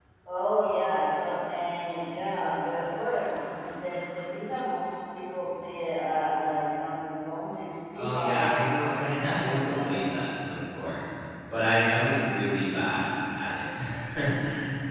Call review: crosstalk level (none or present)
present